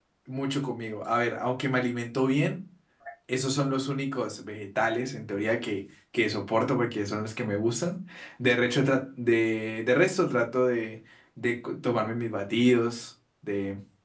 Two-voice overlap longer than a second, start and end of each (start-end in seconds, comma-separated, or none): none